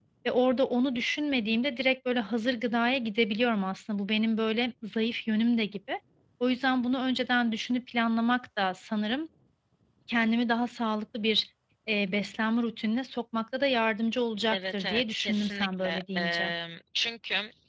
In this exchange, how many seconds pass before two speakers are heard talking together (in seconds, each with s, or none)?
14.5 s